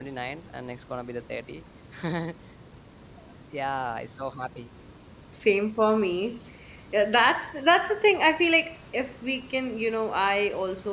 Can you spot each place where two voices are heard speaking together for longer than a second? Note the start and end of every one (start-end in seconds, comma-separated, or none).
none